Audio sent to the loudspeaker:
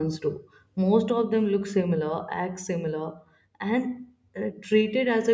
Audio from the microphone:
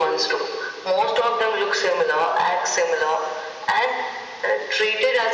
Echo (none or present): present